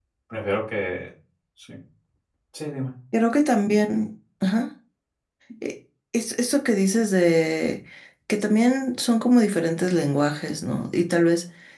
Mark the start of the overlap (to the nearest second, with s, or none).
none